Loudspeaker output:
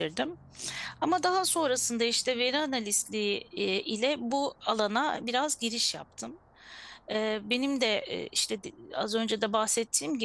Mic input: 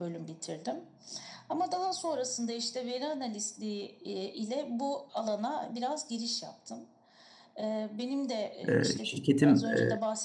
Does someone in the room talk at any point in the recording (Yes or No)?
Yes